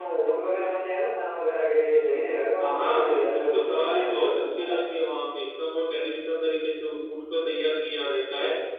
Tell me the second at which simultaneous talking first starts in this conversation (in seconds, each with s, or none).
2.6 s